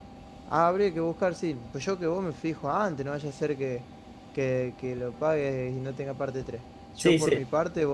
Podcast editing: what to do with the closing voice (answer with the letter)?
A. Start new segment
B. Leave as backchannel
B